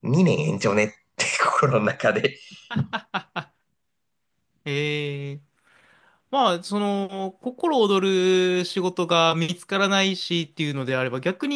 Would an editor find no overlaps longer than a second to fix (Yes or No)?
Yes